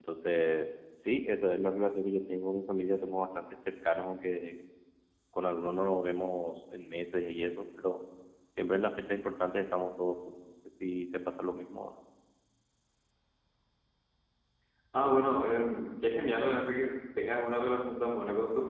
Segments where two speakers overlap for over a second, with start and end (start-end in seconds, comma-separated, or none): none